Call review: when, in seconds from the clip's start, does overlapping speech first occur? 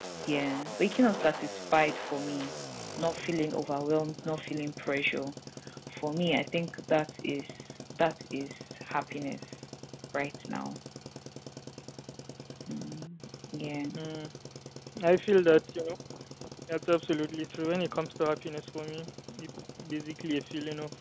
none

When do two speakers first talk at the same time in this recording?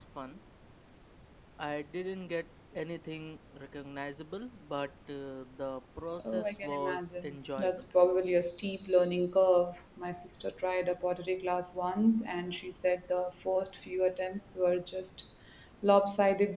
6.2 s

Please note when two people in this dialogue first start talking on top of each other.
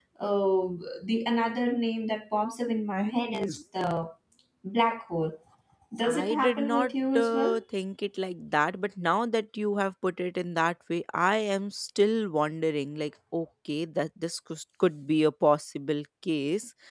6.0 s

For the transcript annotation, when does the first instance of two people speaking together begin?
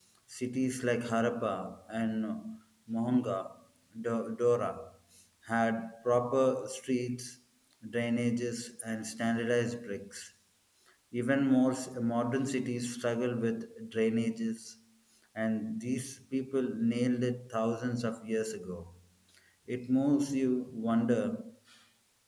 none

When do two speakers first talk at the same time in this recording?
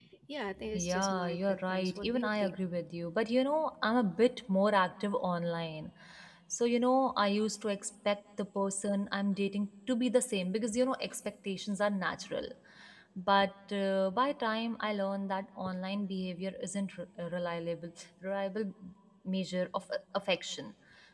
0.7 s

